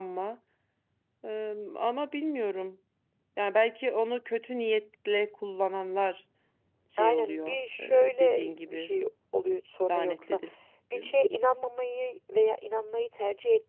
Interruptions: present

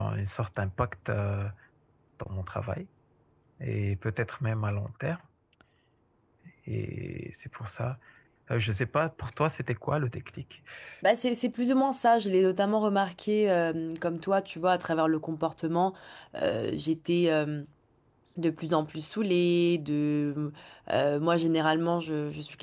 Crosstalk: none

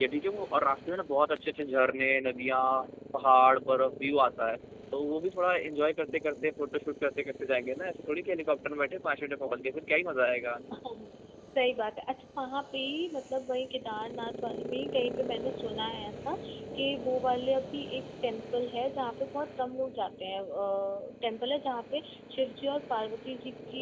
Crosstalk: none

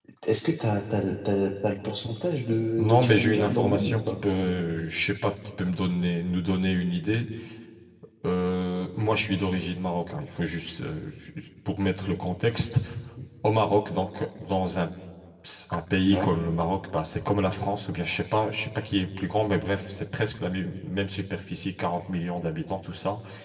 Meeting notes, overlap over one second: present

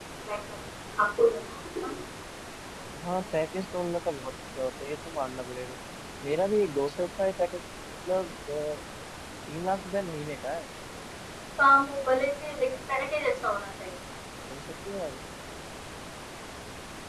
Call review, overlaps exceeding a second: none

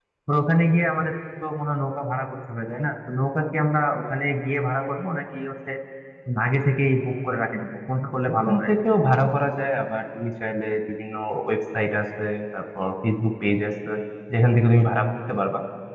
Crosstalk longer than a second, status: none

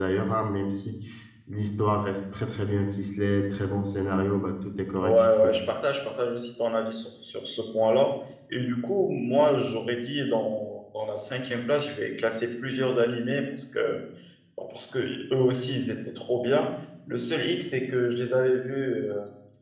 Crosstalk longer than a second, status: none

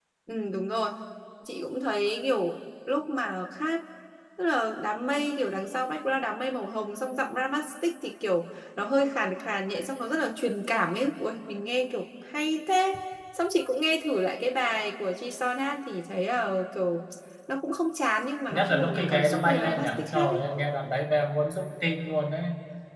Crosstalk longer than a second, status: present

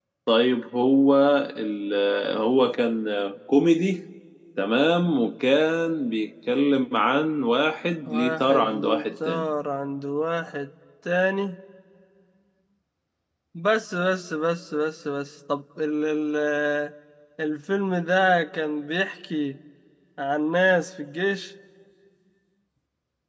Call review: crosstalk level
present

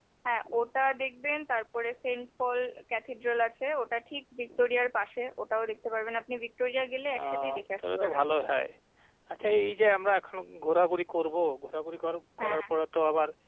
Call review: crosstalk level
present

